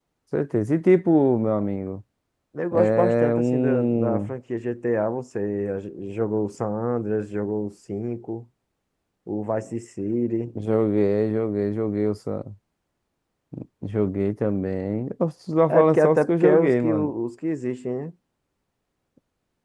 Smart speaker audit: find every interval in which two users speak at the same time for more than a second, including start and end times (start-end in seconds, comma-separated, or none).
2.7-4.3, 15.7-17.1